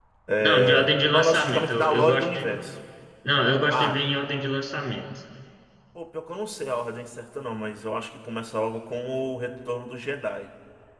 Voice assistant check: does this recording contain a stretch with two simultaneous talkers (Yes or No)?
Yes